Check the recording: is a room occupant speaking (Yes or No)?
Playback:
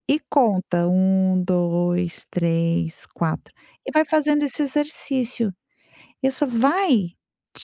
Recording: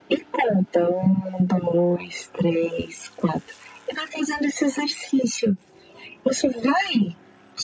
No